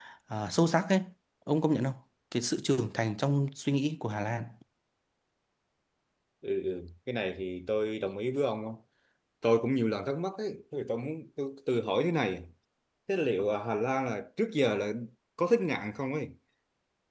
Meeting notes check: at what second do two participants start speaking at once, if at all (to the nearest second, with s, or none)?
none